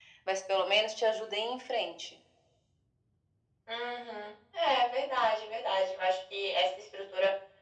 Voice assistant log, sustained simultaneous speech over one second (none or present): none